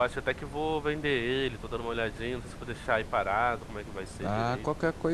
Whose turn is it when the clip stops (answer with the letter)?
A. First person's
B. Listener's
B